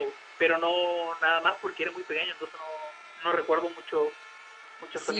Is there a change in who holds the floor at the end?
Yes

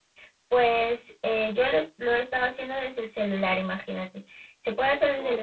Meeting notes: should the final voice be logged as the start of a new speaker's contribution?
No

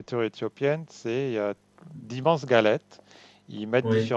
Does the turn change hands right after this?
No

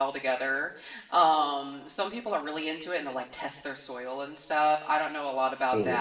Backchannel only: Yes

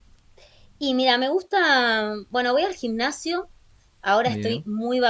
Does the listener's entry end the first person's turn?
No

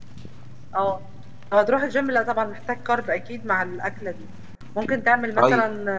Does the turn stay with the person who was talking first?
Yes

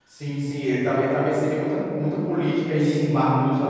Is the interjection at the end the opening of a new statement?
Yes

